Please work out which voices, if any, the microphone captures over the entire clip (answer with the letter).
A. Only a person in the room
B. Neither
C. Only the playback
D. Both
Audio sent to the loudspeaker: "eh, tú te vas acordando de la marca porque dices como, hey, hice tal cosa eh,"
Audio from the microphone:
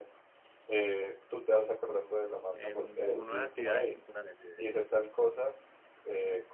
D